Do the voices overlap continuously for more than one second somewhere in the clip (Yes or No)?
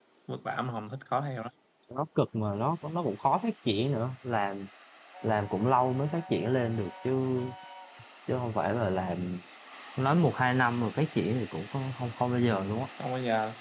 No